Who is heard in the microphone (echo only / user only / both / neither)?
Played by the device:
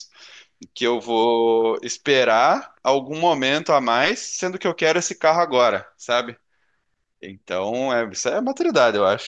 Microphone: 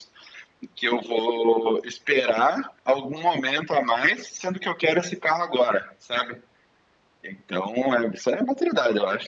echo only